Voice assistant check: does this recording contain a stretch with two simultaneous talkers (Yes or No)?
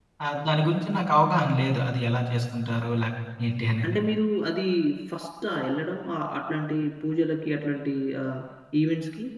No